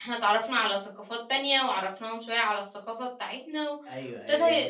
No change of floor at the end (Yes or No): No